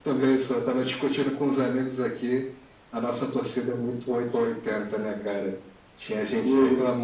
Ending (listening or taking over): listening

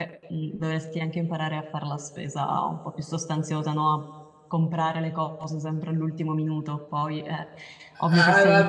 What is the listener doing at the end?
taking over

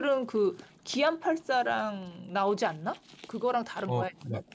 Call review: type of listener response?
taking over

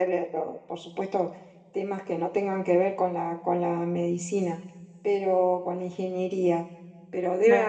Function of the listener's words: listening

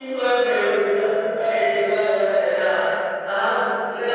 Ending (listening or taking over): taking over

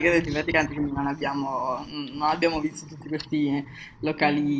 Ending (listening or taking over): listening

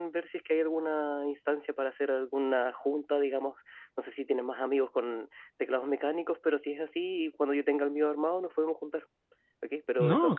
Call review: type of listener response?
listening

